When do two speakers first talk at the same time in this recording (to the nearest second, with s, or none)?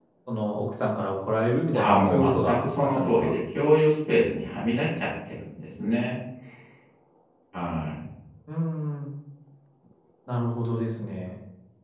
2 s